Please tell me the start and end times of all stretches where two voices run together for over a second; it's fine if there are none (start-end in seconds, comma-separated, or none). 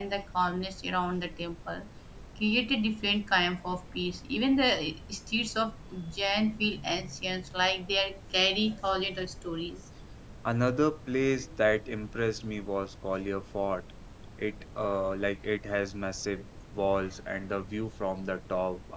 none